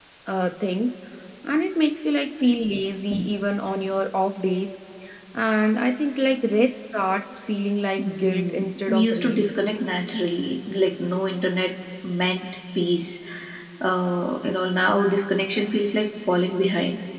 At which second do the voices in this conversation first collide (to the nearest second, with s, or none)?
8 s